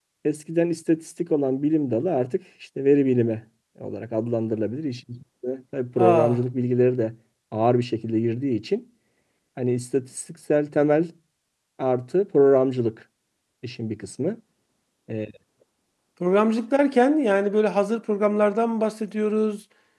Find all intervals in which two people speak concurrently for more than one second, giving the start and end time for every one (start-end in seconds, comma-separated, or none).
none